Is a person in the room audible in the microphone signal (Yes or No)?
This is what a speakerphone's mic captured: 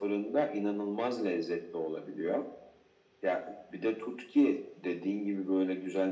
No